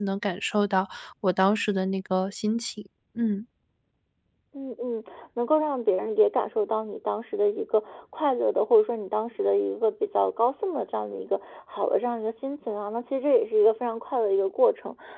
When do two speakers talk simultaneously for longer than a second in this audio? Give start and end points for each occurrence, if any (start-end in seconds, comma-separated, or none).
none